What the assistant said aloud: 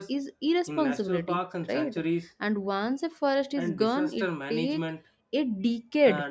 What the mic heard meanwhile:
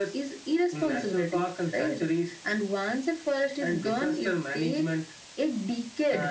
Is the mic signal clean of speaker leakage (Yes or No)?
No